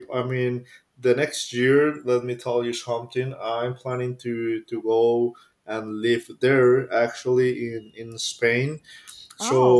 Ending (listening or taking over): listening